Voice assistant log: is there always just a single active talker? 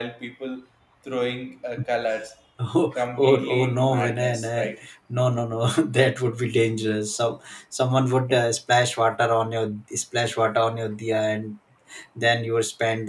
No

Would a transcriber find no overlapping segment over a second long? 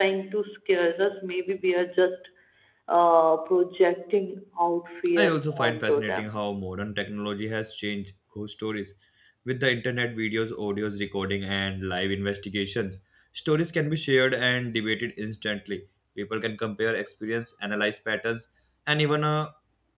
No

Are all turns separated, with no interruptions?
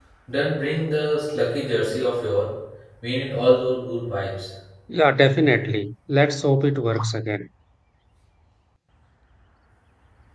Yes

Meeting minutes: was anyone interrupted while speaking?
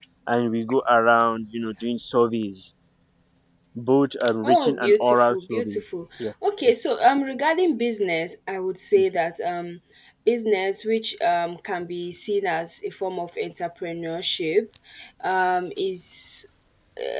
Yes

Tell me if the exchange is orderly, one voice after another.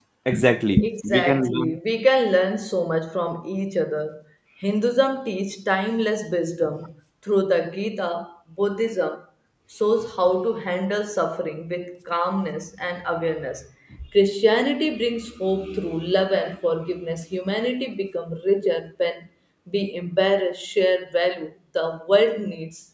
No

